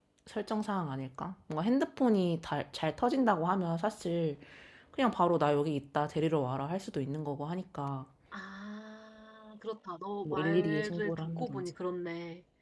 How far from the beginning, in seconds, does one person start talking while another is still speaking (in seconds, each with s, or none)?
10.2 s